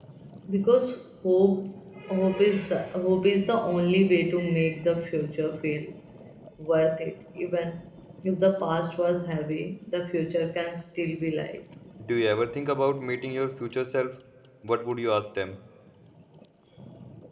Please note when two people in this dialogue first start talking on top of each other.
none

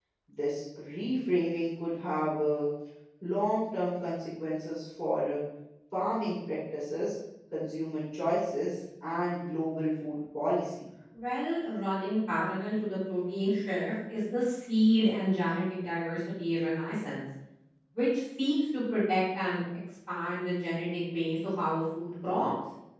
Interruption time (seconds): none

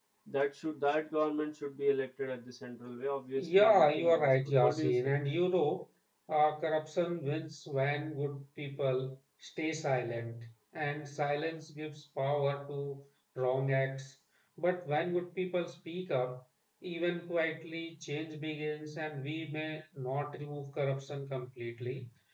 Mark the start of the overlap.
3.4 s

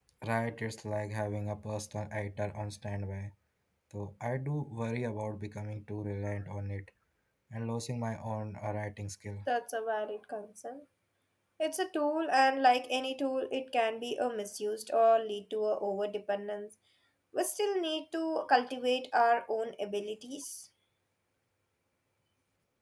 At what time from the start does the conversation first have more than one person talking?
none

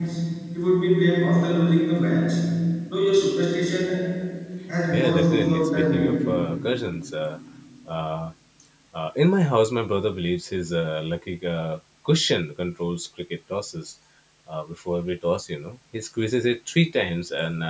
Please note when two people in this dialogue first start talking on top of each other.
4.9 s

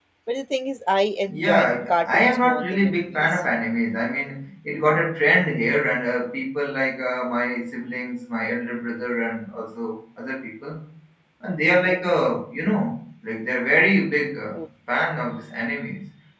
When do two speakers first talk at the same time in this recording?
1.3 s

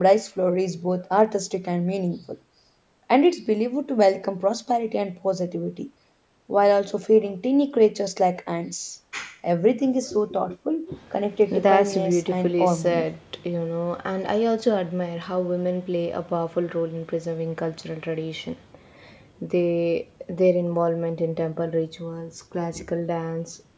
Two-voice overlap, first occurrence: 11.5 s

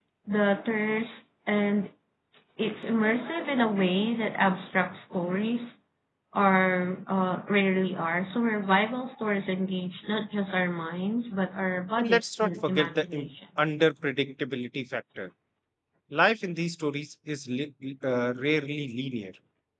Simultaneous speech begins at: 12.0 s

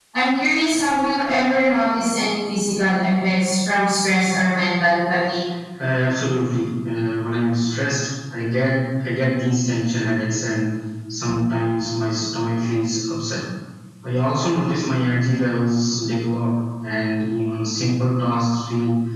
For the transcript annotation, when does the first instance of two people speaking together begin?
none

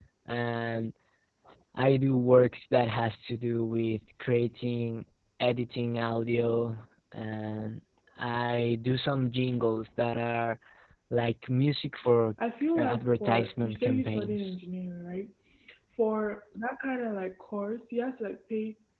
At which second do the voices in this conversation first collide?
12.8 s

